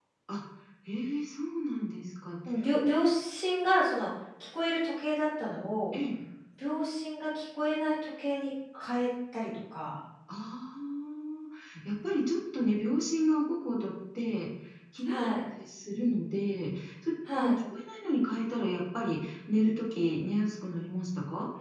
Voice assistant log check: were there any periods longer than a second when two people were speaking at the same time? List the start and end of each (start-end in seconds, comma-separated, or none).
none